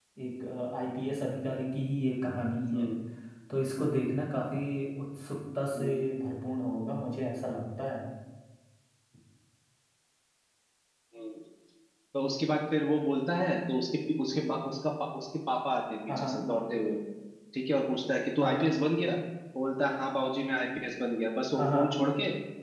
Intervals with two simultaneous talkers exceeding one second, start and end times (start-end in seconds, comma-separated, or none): none